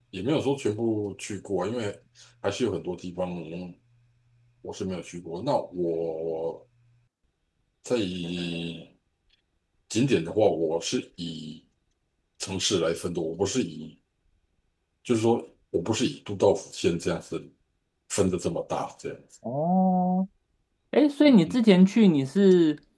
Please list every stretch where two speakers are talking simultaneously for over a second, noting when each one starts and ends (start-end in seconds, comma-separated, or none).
none